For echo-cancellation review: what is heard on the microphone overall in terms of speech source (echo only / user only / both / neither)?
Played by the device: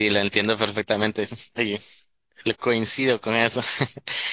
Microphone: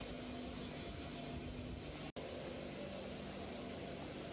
neither